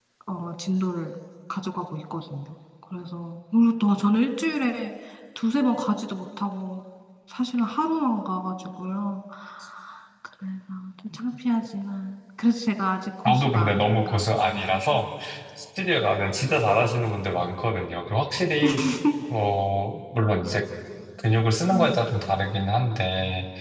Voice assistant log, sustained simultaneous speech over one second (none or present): present